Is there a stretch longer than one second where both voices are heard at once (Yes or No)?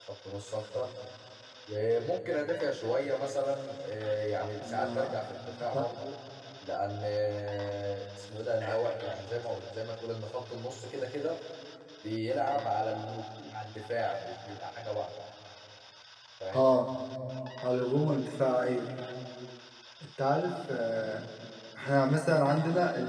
No